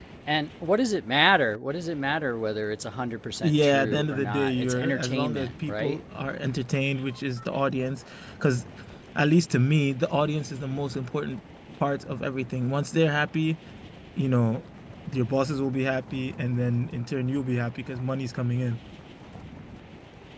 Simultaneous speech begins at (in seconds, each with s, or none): 3.4 s